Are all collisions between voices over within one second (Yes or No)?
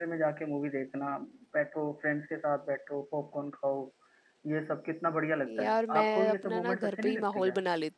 No